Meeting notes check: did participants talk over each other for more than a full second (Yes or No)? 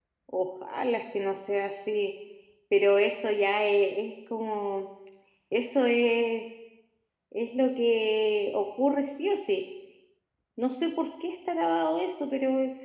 No